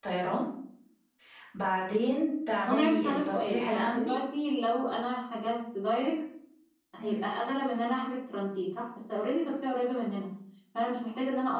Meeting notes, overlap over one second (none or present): present